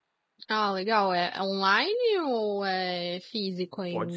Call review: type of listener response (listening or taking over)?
taking over